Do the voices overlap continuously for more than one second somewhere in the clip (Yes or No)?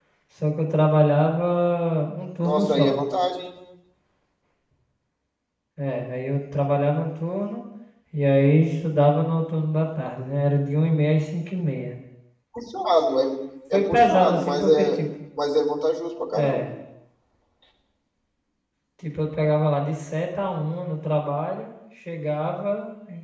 Yes